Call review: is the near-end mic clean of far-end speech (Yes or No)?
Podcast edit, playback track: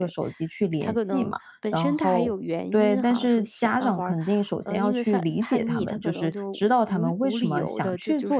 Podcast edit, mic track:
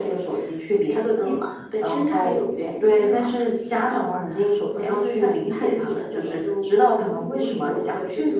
No